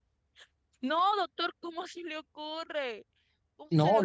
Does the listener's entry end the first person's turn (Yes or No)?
Yes